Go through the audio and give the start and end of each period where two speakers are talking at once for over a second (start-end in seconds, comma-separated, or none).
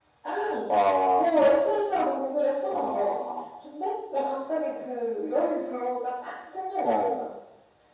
none